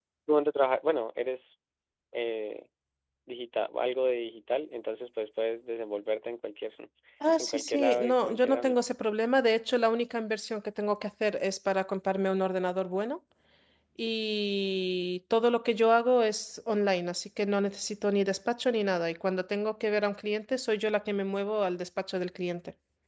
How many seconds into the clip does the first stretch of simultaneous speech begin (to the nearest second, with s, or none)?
7 s